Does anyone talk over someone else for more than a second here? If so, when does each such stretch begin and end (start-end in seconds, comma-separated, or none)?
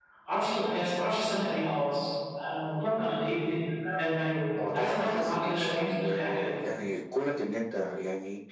4.6-6.4